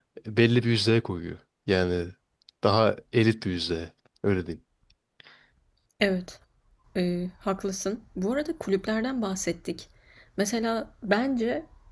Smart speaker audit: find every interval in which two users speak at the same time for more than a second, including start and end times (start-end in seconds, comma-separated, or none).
none